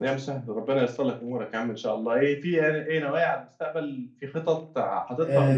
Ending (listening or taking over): taking over